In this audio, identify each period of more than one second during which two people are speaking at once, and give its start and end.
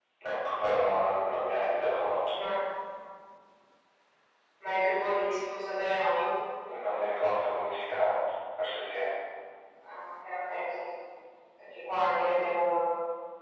none

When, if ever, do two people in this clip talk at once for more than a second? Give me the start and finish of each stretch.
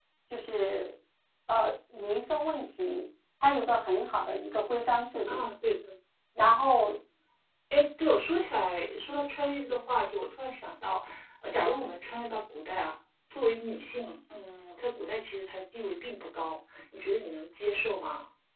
none

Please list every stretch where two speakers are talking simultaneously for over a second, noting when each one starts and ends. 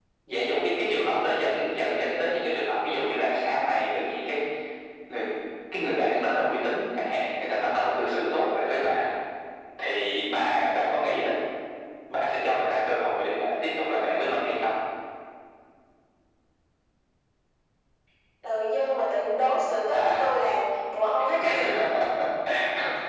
none

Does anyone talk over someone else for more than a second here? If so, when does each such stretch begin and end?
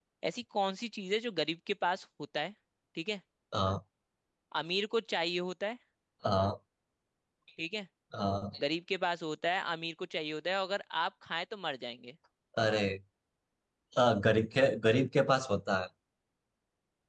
none

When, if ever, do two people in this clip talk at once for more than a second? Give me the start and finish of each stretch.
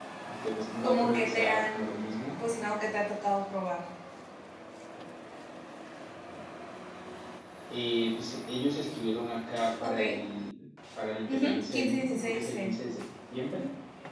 0.8-2.1, 11.3-12.7

